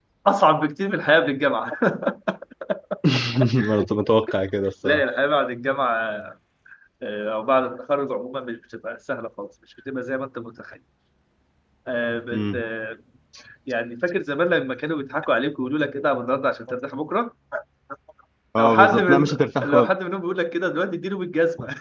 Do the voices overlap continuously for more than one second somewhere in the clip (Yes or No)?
Yes